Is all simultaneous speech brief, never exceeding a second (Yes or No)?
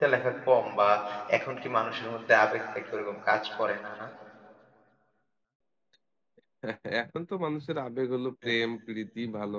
Yes